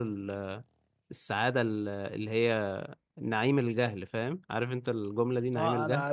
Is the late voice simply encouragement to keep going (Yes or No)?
No